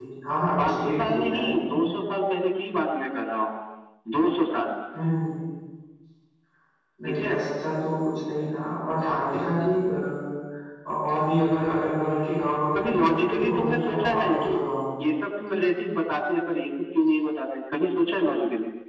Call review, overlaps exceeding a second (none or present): present